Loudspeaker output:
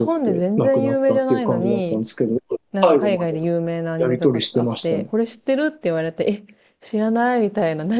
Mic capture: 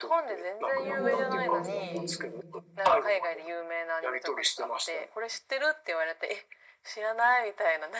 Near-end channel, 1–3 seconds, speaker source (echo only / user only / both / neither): both